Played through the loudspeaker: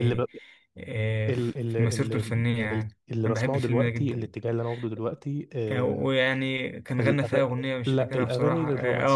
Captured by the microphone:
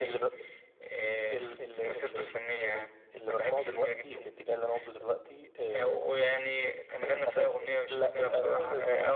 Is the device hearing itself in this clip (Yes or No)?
Yes